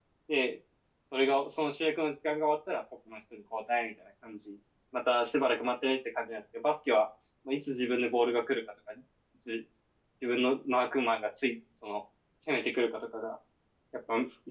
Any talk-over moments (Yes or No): No